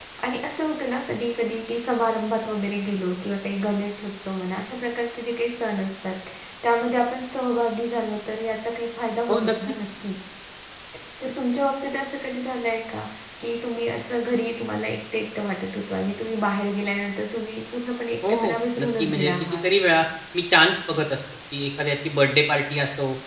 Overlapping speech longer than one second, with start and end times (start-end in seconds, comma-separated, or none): 18.3-19.6